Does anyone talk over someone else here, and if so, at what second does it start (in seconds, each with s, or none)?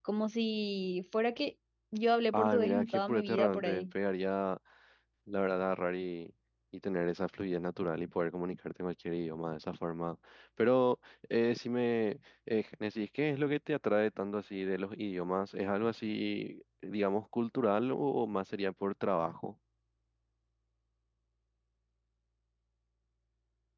2.3 s